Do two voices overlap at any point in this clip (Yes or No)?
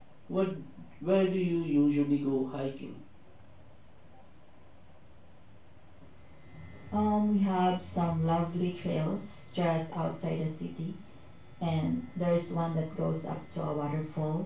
No